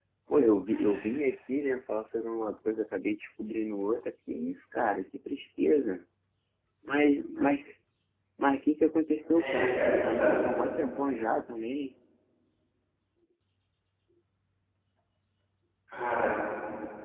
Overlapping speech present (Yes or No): Yes